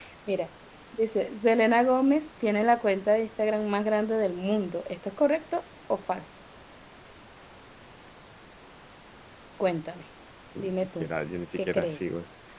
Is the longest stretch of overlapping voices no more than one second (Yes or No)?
Yes